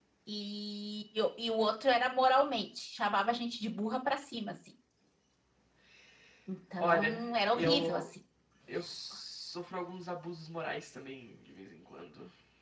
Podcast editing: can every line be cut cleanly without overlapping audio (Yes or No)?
No